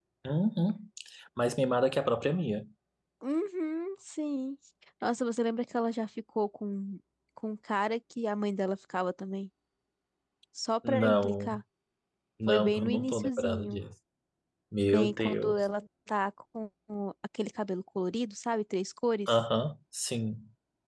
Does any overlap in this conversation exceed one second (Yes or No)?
Yes